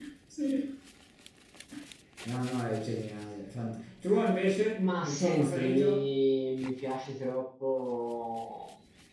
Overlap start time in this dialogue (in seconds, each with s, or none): 4.8 s